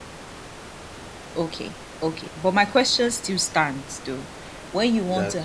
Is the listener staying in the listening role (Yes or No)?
Yes